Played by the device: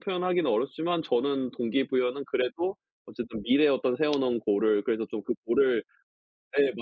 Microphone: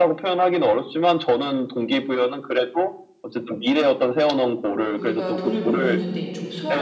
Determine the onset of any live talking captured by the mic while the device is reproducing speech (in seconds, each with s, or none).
4.9 s